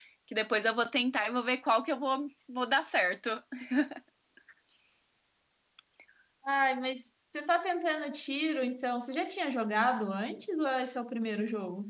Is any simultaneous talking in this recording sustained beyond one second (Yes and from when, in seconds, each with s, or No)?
No